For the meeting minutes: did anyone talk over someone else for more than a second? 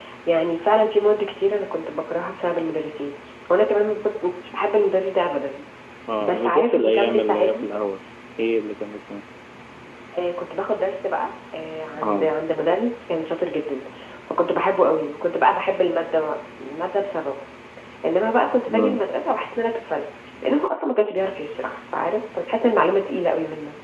Yes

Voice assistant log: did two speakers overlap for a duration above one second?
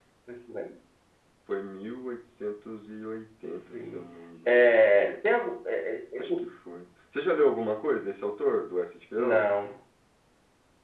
No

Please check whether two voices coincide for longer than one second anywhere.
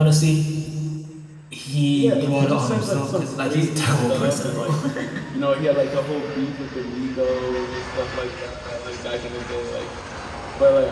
Yes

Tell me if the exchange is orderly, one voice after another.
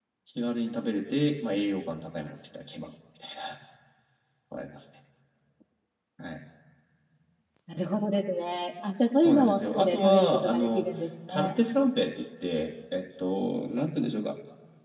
No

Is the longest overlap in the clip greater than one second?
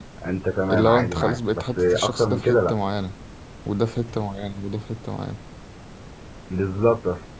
Yes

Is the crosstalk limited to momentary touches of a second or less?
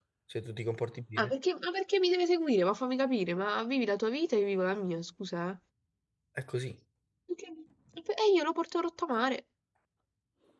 Yes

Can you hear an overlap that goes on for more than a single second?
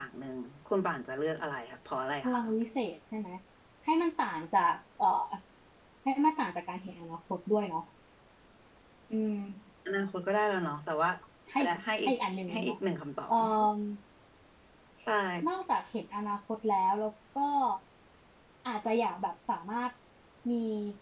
No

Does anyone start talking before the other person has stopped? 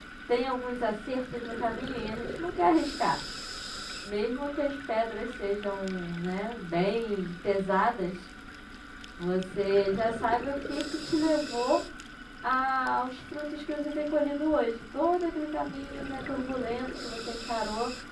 No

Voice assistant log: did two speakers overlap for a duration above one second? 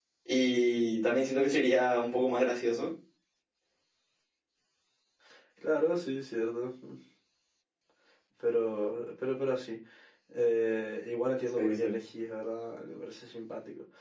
No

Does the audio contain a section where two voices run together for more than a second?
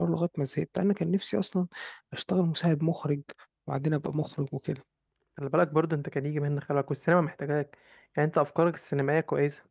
No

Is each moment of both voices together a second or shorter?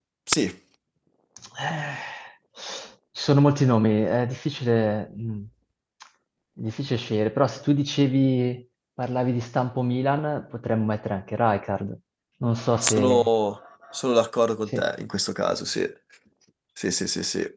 Yes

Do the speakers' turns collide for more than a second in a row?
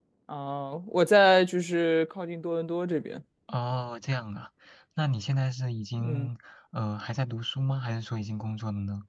No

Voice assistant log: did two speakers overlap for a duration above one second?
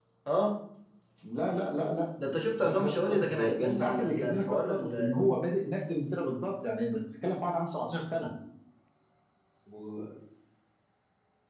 Yes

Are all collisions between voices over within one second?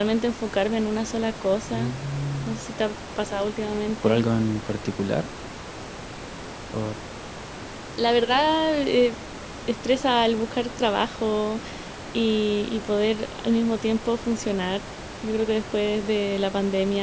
Yes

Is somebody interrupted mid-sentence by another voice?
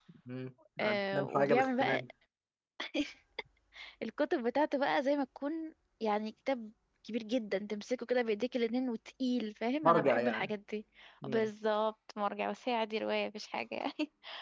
Yes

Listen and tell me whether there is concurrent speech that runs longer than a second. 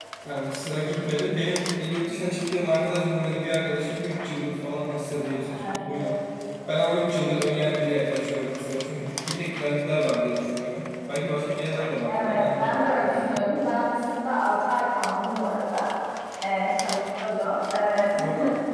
Yes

